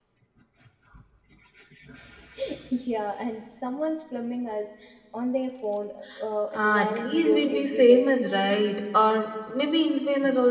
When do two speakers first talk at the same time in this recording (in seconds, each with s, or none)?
6.5 s